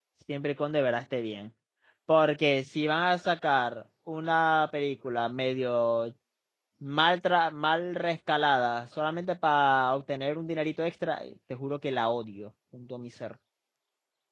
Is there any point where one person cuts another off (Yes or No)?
No